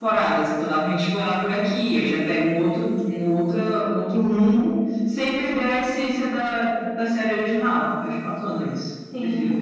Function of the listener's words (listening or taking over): taking over